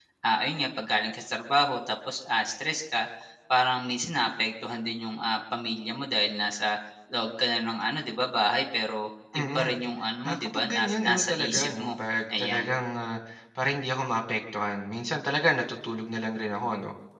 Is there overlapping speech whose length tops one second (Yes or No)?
Yes